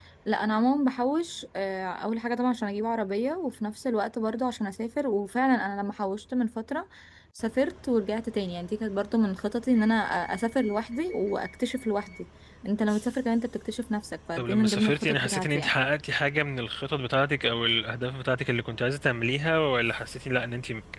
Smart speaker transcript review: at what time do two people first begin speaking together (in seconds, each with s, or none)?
14.4 s